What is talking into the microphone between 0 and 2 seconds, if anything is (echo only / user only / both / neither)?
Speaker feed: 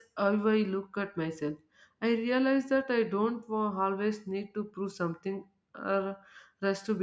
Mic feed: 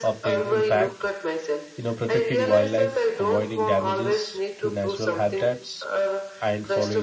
both